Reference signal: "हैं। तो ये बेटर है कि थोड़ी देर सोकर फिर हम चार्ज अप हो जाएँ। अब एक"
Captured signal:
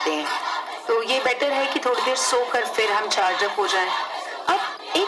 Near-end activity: none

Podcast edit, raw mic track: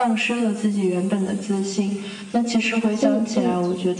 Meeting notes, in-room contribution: present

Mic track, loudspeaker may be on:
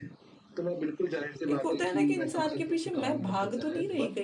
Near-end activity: present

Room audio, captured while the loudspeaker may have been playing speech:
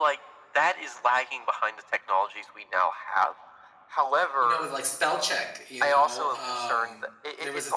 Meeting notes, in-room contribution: present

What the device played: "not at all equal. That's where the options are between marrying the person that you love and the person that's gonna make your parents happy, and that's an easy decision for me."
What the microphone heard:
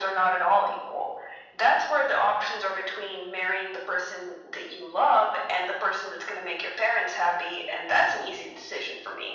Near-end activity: none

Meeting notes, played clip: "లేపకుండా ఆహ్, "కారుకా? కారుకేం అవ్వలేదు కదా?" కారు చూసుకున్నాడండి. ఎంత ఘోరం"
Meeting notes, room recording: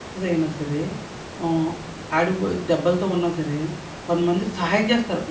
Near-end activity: present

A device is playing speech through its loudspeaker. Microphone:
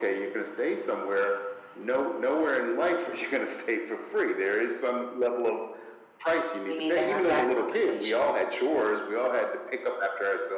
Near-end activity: present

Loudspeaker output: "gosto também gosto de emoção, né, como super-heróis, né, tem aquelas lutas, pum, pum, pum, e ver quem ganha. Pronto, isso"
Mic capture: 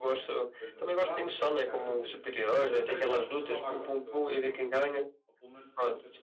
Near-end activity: present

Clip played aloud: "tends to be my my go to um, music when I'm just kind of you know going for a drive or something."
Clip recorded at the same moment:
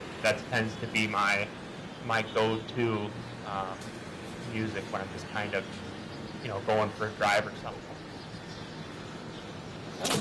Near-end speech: none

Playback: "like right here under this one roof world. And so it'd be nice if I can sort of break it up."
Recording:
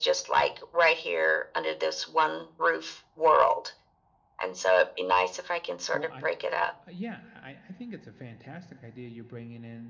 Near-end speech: present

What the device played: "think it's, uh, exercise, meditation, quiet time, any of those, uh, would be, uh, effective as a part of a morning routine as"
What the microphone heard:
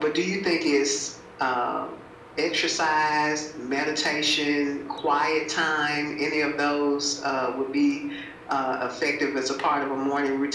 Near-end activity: none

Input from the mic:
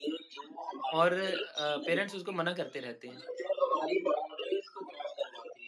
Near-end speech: present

